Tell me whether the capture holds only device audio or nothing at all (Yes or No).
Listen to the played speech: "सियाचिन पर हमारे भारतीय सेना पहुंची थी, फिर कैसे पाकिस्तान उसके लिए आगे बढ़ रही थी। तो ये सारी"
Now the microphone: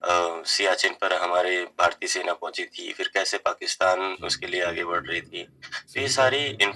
No